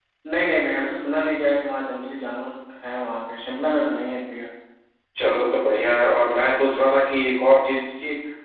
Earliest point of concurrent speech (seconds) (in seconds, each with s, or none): none